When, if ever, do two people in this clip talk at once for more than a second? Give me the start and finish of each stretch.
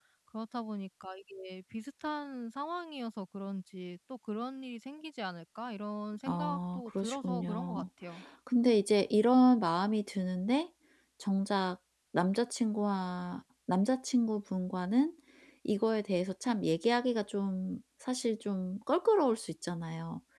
6.3-7.8

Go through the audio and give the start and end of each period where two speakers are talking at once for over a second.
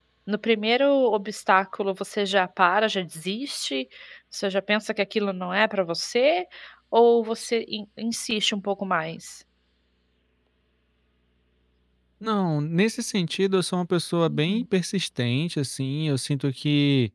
none

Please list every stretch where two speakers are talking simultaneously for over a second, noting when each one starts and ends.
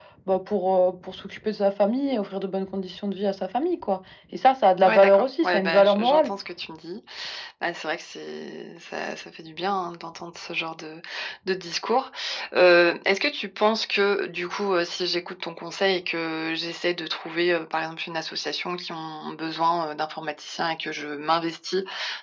4.8-6.3

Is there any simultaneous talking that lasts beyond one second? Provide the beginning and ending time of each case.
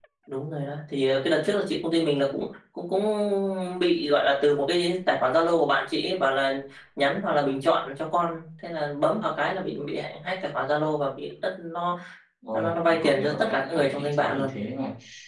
12.5-14.5

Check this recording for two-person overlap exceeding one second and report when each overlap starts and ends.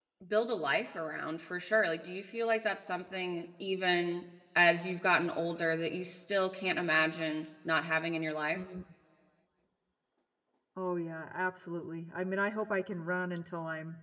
none

